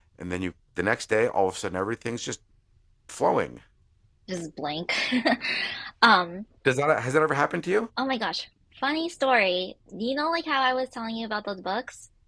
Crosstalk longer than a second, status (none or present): none